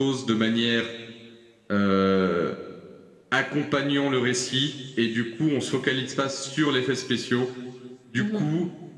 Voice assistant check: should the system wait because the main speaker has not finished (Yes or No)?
Yes